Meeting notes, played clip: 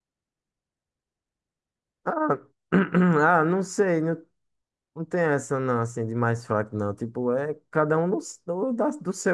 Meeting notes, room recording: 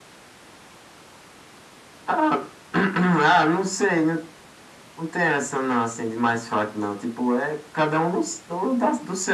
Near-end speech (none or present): none